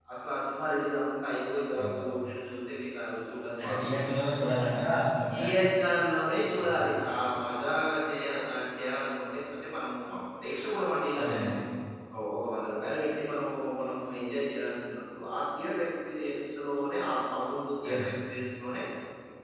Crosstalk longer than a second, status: none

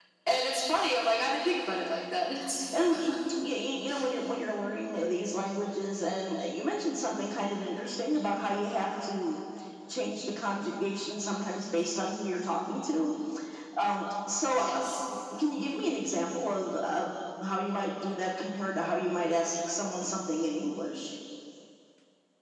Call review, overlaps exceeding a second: none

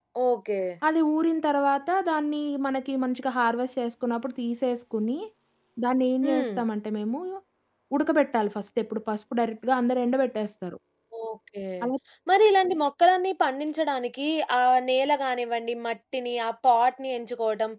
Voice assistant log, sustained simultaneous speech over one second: none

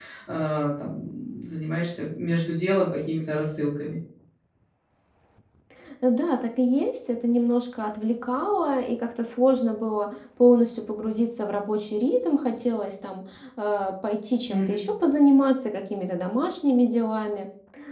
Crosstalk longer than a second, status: none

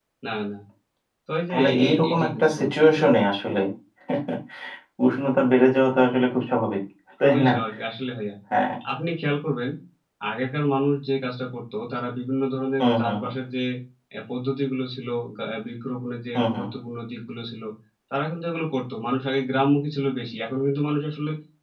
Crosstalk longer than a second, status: present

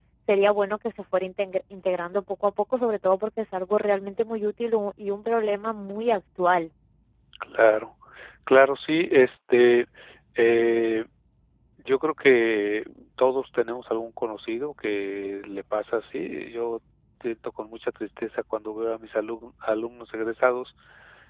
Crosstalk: none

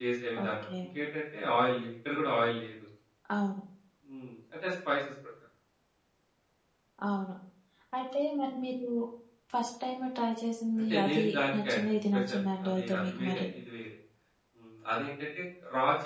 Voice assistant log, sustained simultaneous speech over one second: present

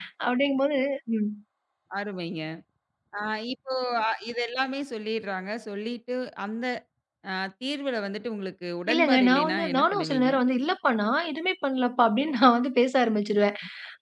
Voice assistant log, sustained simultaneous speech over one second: present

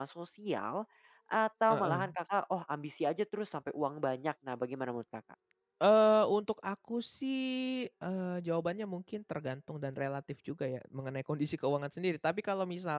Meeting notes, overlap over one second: none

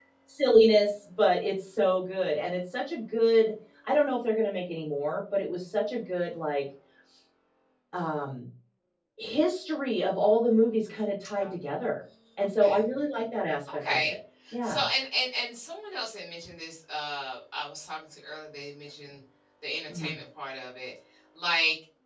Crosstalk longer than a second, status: none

